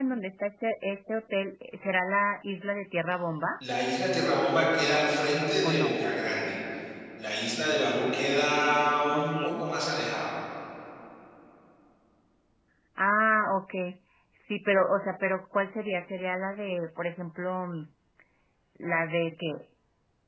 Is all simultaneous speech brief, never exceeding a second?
Yes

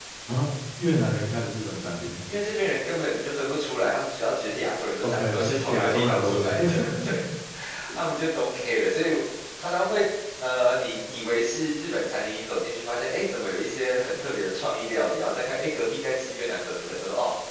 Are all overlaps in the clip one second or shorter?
No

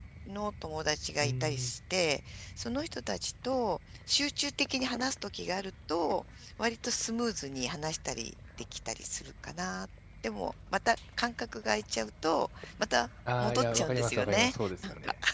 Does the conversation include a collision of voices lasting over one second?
Yes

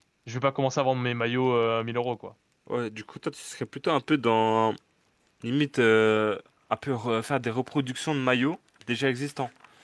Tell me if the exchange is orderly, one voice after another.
Yes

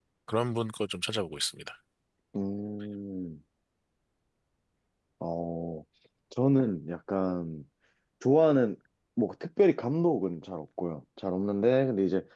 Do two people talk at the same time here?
No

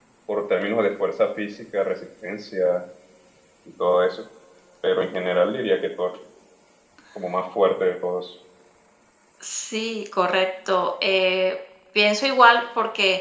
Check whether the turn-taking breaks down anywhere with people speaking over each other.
No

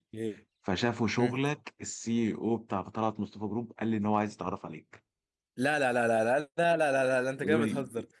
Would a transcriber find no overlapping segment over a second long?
Yes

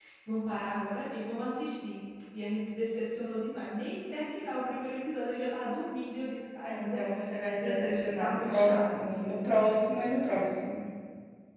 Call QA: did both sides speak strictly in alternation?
No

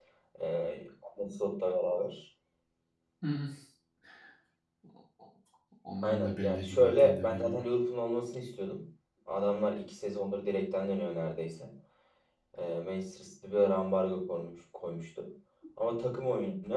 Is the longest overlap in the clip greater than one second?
Yes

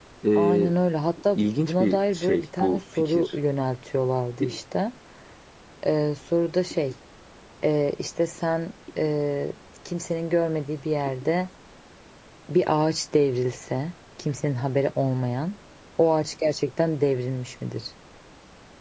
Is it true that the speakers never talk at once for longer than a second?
No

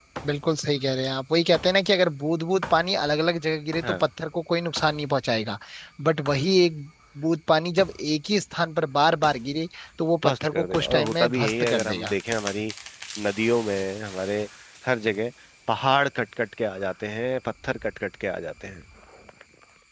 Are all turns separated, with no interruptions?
No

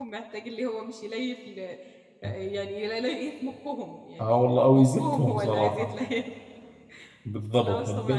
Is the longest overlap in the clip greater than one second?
Yes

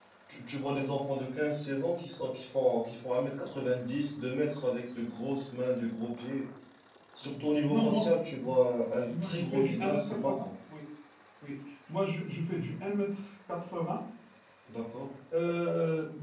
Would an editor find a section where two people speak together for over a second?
Yes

